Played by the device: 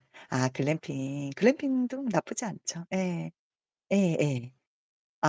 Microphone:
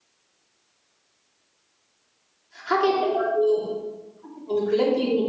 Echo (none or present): none